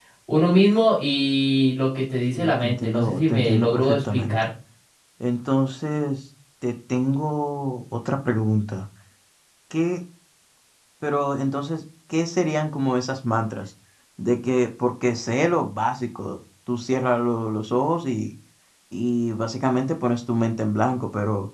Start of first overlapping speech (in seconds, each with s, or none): 2.3 s